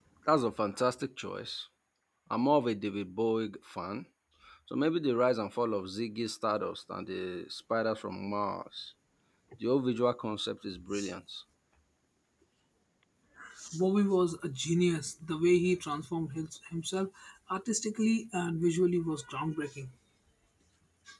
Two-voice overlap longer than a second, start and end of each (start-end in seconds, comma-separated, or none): none